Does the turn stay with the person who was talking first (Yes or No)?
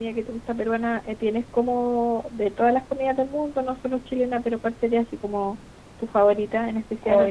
No